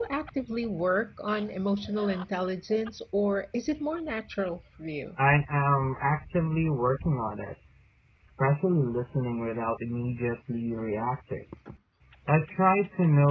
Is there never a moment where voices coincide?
Yes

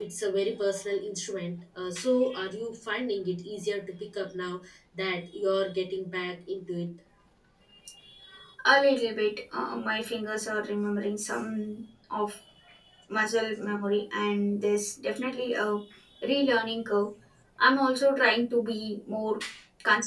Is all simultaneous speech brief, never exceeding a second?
Yes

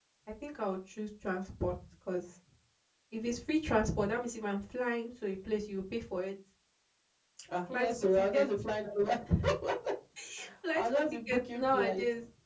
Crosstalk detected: Yes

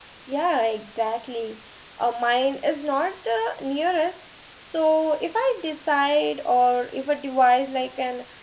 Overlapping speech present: No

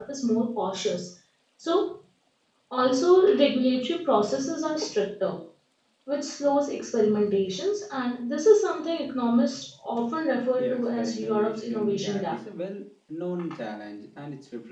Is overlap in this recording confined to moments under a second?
No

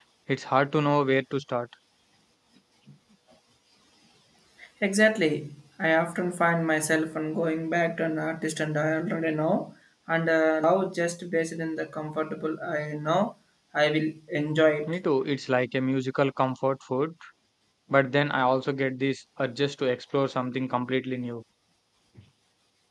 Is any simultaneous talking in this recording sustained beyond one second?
No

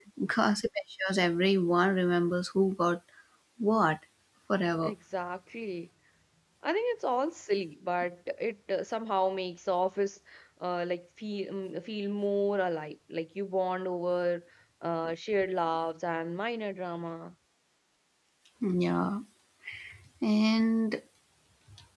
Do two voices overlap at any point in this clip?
No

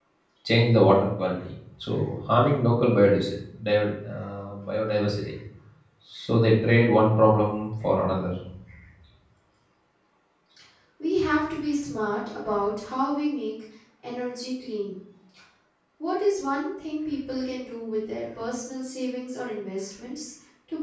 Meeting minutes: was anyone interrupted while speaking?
No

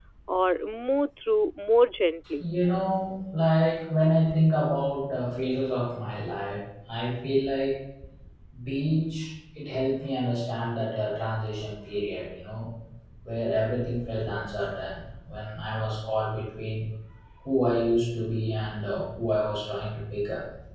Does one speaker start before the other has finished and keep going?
No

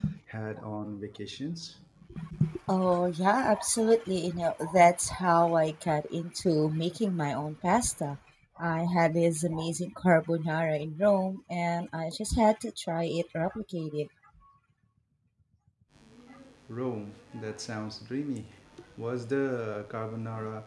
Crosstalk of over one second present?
No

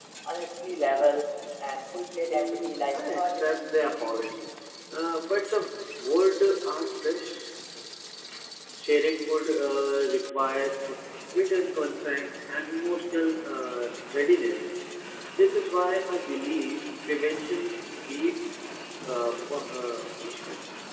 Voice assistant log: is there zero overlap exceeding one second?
No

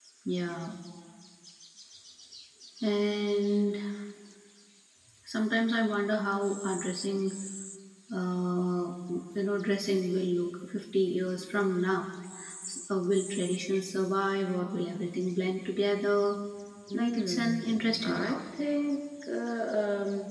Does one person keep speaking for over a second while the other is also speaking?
Yes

